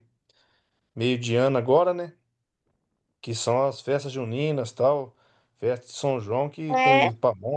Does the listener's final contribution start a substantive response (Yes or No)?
No